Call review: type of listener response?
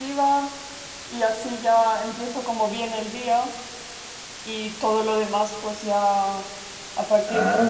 listening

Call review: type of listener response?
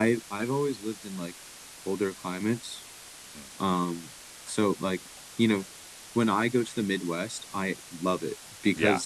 listening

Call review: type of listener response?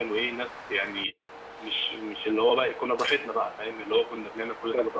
listening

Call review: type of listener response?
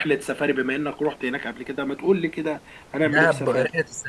taking over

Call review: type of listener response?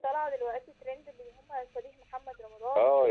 taking over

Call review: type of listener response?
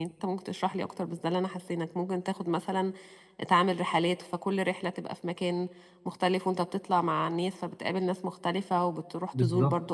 listening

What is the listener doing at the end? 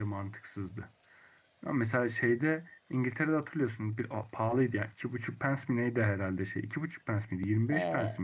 taking over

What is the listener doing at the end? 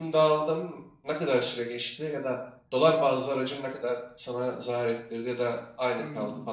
taking over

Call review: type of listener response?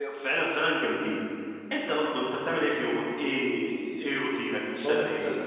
taking over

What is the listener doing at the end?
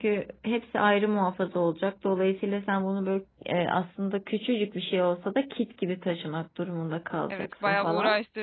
taking over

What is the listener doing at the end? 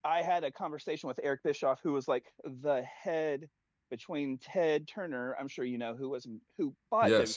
listening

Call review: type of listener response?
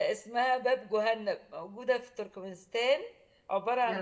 listening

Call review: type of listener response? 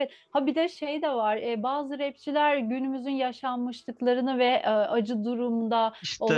listening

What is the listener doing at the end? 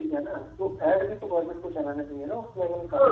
taking over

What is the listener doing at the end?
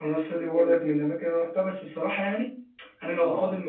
listening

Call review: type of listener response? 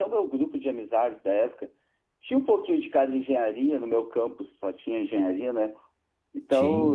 listening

